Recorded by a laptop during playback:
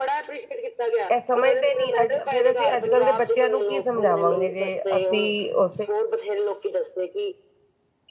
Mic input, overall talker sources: both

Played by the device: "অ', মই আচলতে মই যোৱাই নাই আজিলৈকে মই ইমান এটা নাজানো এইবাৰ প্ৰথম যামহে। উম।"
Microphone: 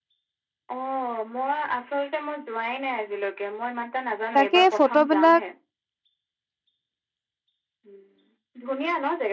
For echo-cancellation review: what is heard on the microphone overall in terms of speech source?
both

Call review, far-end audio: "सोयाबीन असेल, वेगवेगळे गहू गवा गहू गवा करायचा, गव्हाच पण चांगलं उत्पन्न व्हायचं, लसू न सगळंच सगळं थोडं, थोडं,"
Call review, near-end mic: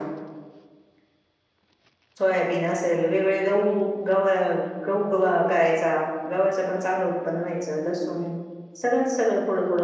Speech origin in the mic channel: echo only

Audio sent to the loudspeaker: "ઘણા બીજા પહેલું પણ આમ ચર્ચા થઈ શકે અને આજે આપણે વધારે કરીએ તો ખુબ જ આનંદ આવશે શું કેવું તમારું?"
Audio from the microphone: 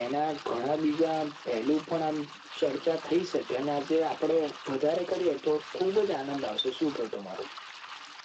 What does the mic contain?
echo only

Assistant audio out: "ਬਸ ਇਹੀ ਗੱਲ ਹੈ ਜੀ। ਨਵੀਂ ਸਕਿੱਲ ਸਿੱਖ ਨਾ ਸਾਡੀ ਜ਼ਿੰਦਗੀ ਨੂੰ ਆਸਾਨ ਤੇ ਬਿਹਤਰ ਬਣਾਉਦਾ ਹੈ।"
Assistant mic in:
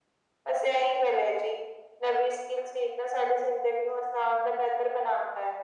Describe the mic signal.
echo only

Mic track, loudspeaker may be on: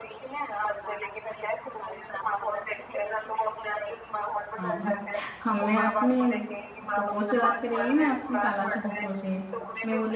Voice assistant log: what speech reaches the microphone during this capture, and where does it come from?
both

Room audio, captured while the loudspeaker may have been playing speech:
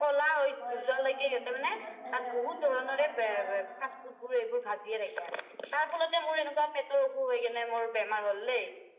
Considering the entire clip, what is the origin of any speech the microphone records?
both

